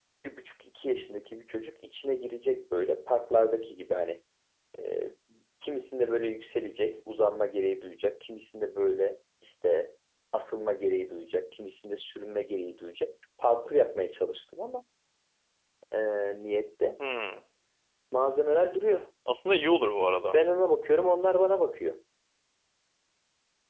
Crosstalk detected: No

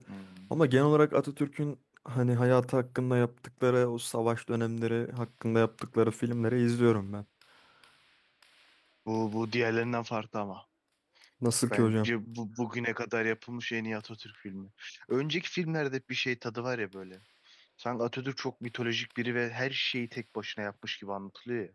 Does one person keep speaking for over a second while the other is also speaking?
No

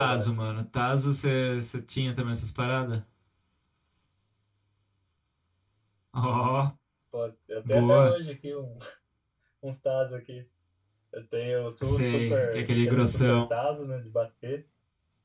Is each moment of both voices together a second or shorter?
No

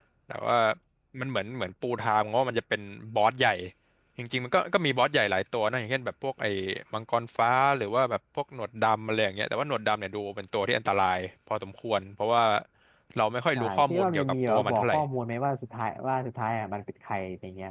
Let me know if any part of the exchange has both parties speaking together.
Yes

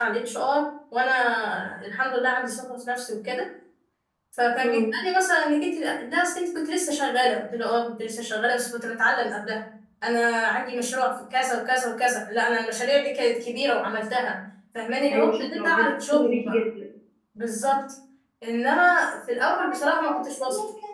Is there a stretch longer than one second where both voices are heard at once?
Yes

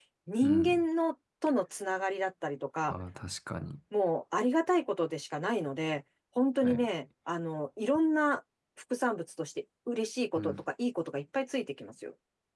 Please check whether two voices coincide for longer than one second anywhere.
No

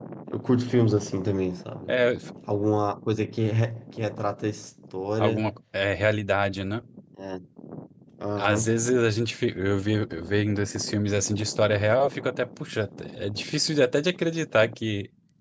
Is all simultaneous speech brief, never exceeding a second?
Yes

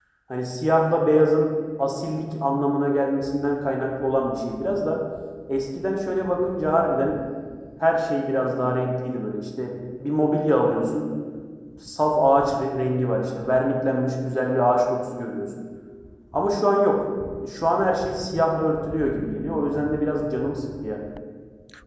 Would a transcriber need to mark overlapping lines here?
No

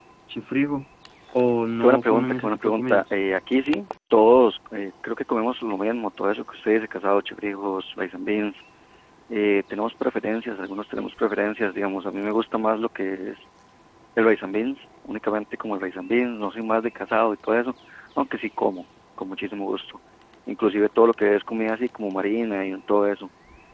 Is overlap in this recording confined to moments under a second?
No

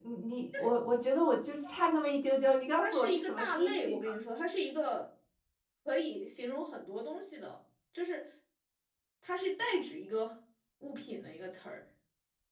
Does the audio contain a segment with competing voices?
Yes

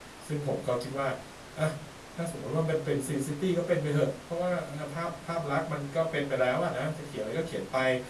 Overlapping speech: No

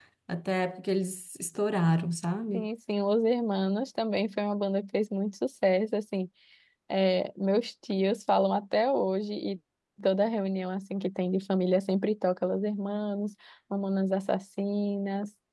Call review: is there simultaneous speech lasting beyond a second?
No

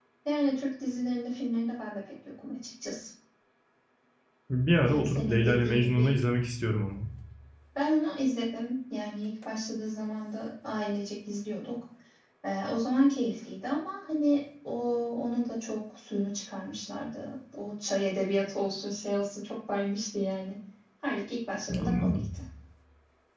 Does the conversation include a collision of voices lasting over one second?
Yes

